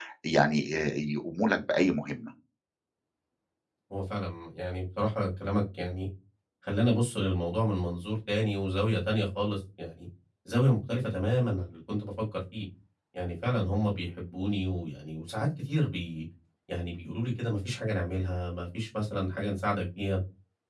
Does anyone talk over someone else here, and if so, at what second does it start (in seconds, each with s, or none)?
none